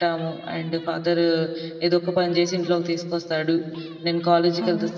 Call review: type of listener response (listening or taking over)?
listening